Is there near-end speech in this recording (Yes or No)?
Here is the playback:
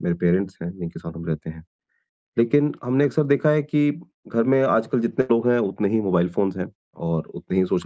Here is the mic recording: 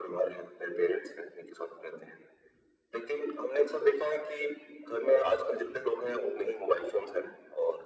No